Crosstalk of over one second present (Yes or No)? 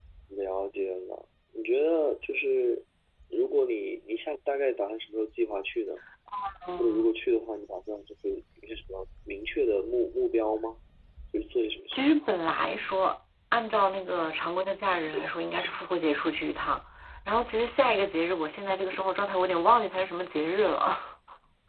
No